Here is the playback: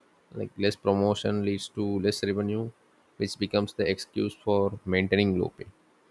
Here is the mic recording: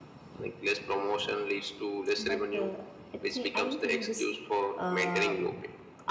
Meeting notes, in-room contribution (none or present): present